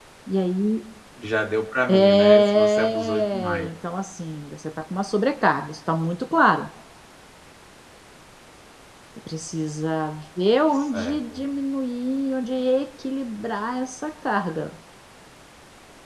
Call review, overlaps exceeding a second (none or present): present